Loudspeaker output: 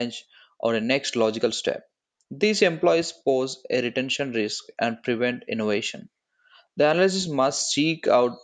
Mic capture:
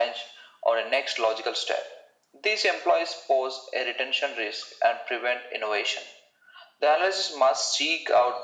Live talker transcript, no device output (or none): none